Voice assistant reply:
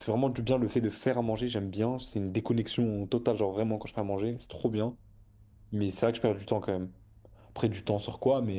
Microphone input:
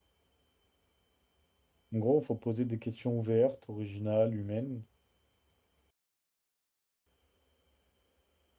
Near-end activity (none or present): present